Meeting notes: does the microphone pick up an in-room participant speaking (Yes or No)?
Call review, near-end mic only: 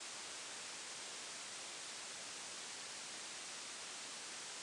No